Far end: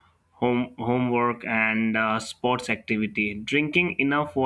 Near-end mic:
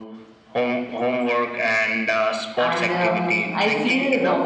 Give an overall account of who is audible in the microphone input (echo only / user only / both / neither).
both